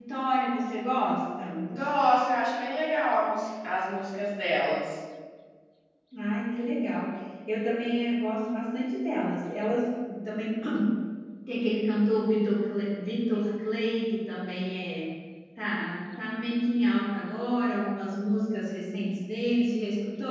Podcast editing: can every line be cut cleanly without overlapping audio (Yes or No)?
Yes